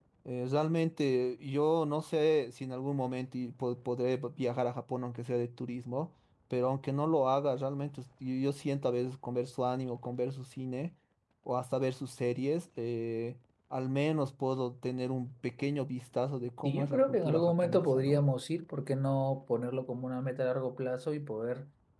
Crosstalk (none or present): present